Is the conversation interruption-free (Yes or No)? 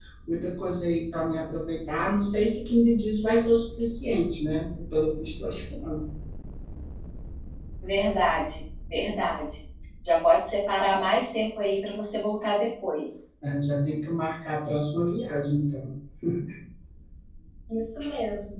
Yes